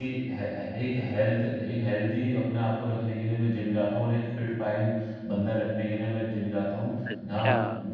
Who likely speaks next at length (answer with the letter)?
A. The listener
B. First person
A